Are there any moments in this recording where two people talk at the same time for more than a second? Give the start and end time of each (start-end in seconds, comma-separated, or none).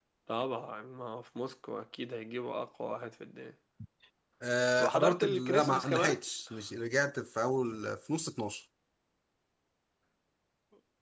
4.8-6.2